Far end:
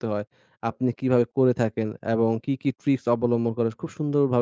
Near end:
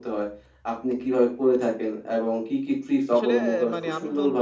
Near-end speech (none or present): present